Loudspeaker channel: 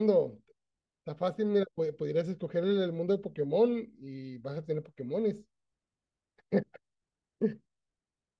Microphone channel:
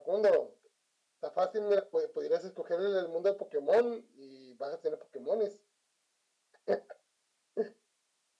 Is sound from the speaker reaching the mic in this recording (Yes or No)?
Yes